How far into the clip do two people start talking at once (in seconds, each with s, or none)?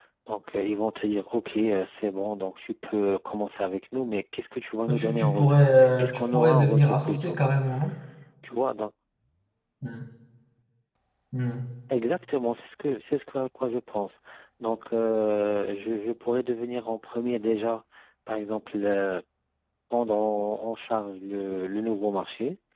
4.9 s